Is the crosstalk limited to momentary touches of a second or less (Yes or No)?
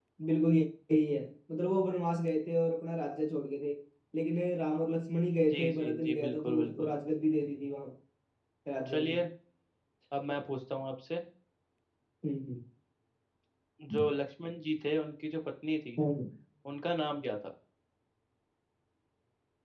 No